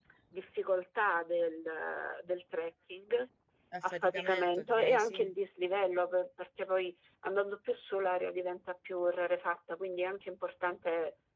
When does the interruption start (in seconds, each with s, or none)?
3.9 s